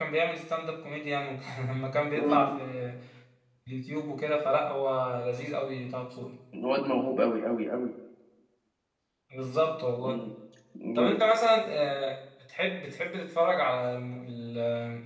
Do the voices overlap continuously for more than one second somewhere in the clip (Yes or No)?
No